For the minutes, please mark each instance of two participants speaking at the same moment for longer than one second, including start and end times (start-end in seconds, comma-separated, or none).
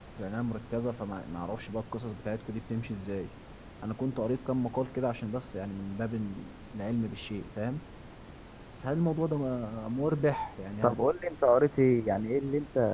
none